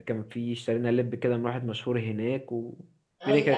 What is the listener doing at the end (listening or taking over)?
taking over